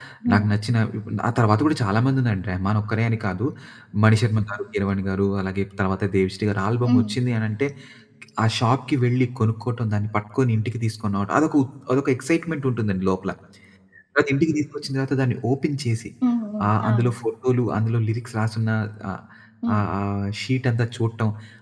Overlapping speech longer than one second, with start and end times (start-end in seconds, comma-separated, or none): none